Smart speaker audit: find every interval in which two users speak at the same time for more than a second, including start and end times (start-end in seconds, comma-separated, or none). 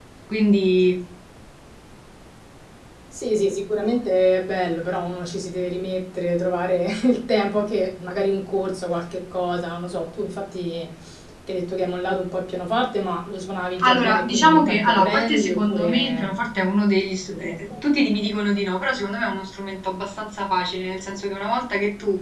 13.8-16.4